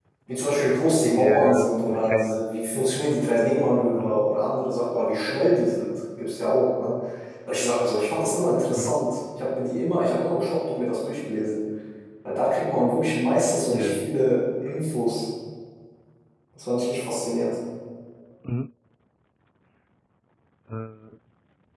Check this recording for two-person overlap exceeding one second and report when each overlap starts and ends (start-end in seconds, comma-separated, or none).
1.2-2.4